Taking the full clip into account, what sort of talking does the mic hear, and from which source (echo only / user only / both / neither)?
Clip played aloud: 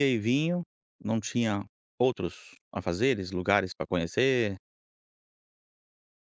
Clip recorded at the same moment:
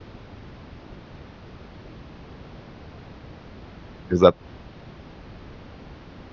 user only